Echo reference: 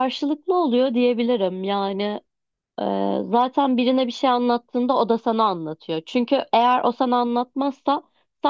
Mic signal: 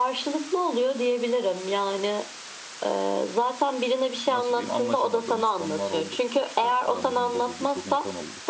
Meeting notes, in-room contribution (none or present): present